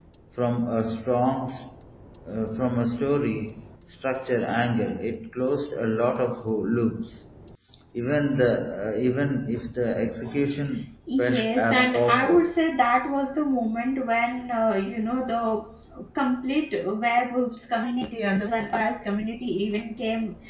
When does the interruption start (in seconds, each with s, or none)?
11.1 s